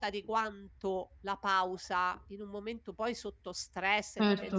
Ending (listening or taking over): listening